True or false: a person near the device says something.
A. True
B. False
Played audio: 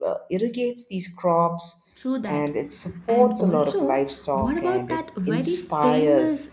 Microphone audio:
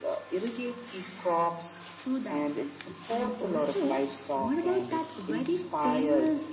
B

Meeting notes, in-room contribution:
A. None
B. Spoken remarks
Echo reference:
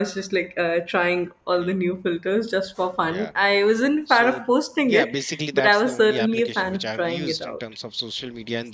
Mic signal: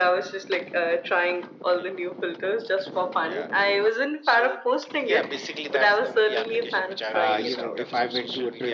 B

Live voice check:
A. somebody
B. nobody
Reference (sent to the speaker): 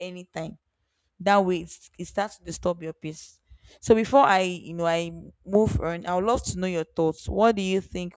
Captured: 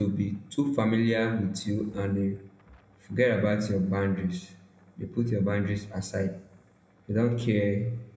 A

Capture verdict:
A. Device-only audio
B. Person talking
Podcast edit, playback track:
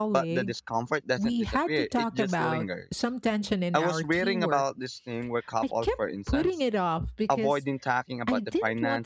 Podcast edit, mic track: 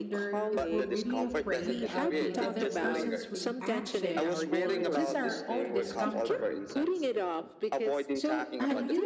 B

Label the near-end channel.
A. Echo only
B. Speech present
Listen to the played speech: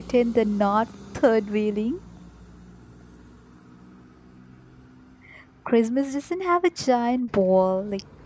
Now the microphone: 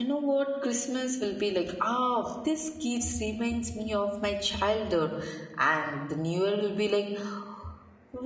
B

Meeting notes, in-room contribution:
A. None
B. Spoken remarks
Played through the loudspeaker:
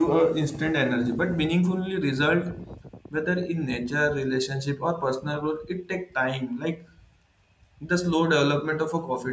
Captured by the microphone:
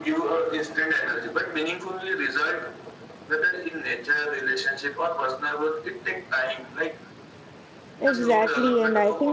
B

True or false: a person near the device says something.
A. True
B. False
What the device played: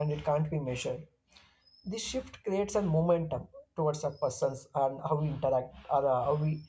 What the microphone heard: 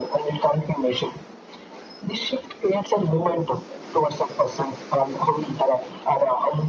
A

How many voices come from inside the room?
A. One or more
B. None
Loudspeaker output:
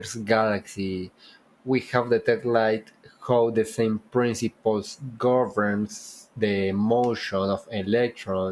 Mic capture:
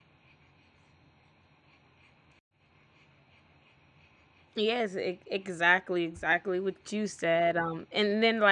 A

